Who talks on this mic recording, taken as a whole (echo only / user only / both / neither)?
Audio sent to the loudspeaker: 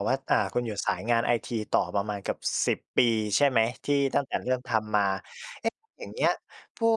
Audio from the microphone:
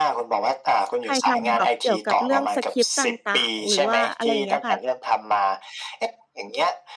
both